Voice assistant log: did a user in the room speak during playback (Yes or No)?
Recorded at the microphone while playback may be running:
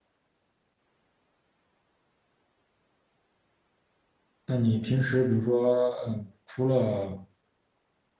Yes